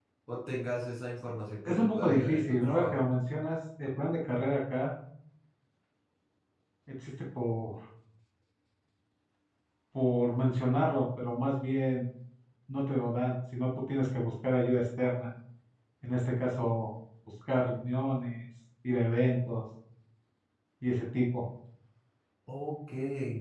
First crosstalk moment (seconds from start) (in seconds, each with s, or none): 1.6 s